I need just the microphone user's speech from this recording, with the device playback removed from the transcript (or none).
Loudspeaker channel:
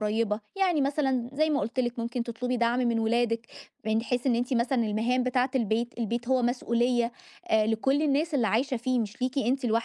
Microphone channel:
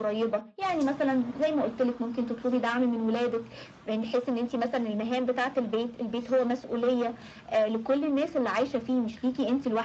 none